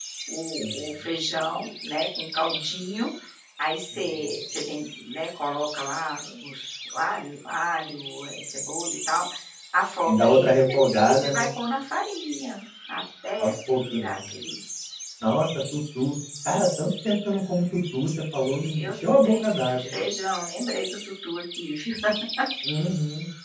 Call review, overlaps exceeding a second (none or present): present